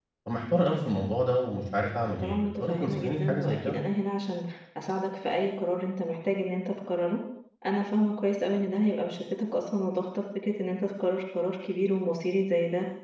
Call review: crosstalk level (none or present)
present